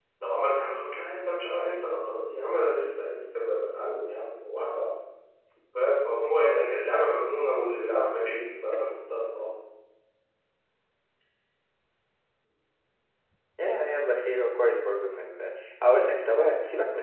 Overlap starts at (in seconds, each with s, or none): none